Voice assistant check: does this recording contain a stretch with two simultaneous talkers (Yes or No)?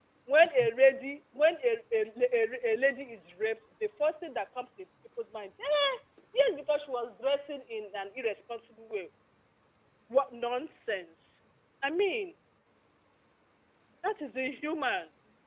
No